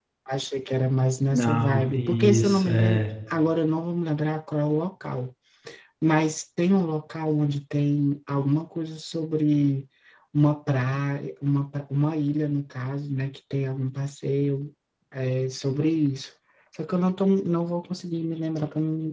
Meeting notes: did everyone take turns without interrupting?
No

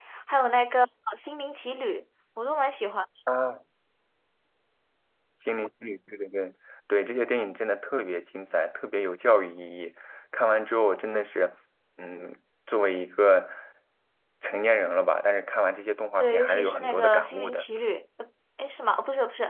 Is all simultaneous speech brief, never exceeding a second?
No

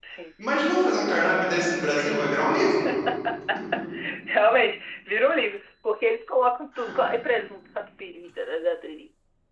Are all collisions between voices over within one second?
Yes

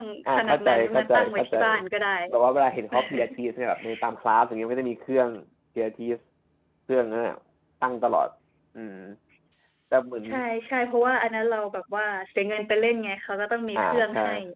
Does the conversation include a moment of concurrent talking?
Yes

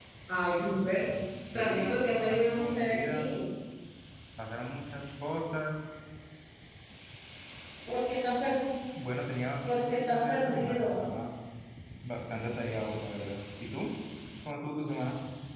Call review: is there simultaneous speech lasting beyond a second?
Yes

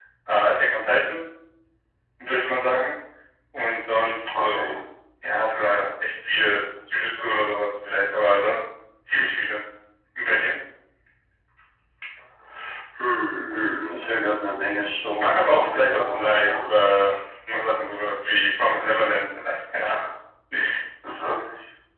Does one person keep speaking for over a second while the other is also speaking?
Yes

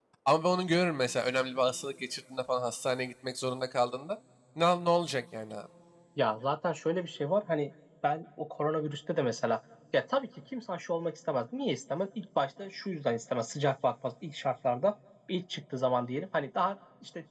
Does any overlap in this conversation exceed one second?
No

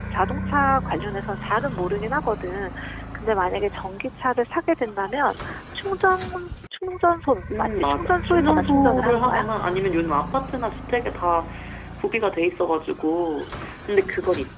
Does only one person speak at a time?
No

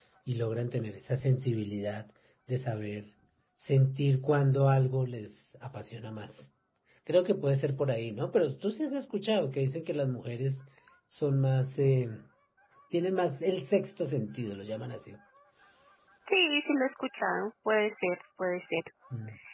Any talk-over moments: No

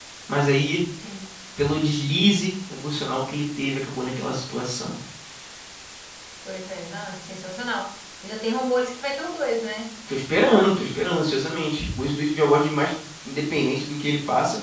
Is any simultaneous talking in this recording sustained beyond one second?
No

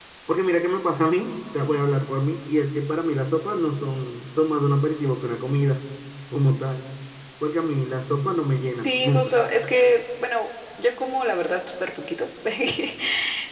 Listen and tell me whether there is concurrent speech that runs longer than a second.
No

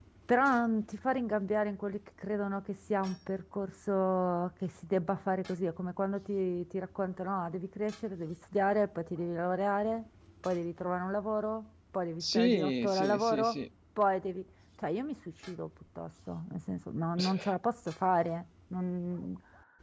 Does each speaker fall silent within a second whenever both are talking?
No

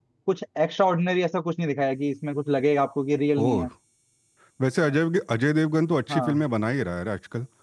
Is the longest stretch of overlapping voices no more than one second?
Yes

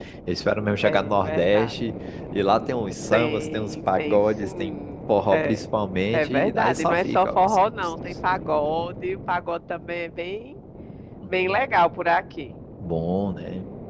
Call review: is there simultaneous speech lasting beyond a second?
Yes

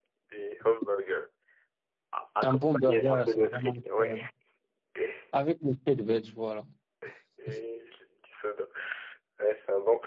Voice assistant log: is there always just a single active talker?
No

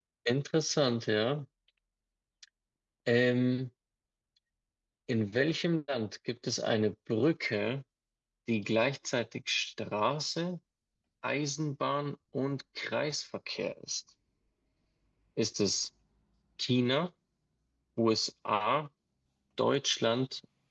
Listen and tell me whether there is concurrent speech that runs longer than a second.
No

